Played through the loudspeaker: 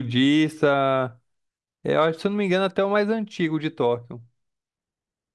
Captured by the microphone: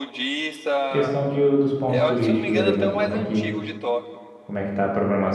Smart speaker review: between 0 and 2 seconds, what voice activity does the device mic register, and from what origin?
both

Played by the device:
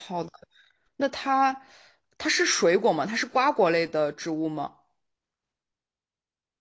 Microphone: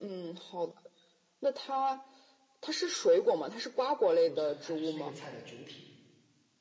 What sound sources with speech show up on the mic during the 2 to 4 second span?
echo only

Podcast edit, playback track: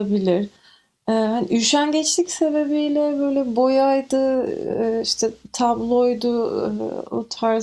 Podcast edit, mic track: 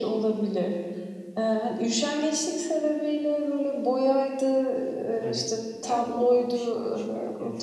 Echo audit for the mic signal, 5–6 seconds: both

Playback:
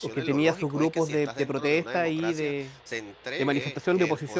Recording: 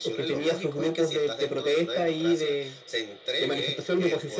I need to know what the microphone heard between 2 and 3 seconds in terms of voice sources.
echo only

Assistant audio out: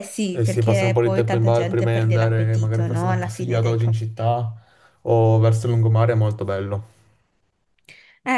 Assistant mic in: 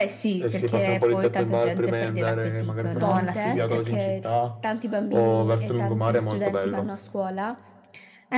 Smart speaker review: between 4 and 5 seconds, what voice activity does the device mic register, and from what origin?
both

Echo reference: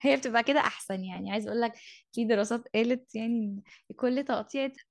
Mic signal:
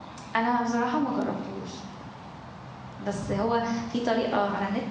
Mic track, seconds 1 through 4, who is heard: user only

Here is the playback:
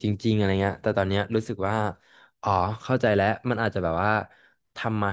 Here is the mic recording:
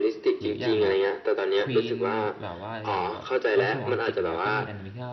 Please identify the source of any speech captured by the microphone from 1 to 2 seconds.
both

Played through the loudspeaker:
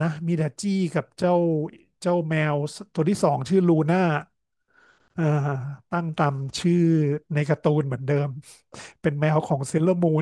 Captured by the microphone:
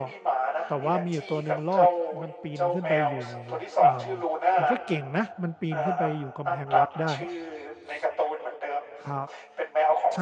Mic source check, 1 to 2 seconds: both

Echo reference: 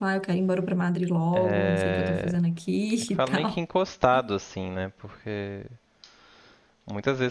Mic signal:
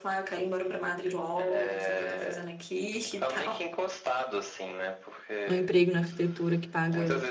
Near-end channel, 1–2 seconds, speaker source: echo only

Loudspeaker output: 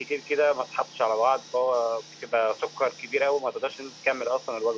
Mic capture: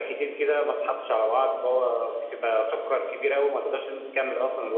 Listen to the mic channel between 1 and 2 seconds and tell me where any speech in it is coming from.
echo only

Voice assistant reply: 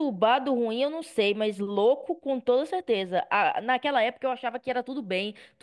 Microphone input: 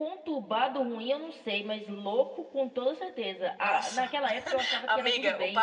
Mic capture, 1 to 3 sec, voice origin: echo only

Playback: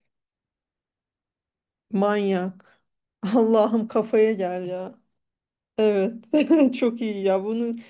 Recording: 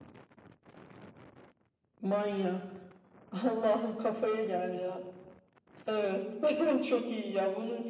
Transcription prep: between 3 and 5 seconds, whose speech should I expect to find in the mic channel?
echo only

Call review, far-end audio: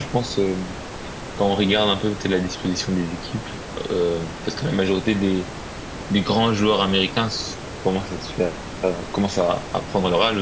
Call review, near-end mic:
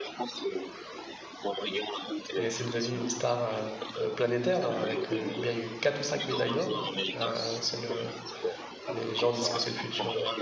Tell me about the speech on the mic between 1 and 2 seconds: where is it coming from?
echo only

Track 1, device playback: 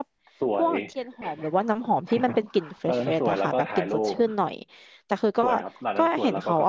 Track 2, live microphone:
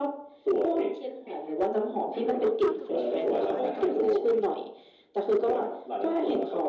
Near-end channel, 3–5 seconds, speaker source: both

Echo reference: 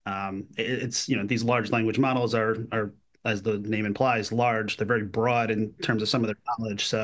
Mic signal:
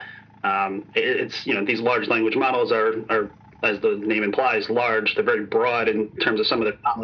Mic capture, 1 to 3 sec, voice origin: echo only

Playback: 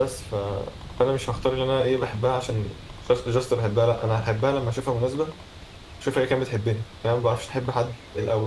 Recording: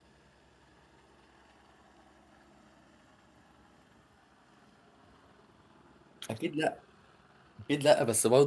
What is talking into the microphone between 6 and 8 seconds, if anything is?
user only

